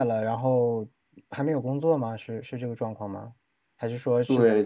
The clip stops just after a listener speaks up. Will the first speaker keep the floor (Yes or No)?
No